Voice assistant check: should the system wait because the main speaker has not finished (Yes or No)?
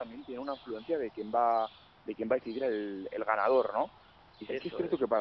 Yes